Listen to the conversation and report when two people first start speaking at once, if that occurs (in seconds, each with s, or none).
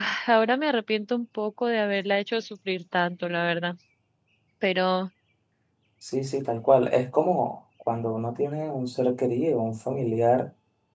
none